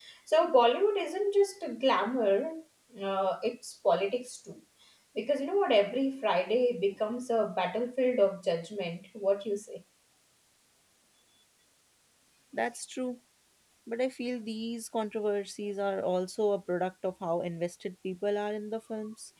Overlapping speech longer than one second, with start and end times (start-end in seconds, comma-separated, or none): none